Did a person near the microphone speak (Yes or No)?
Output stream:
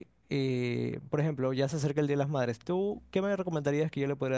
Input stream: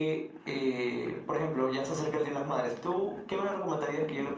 No